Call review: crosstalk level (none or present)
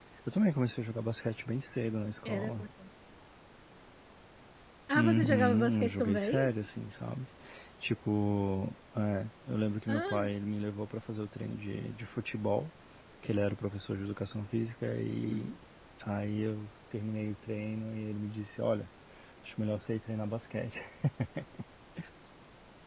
present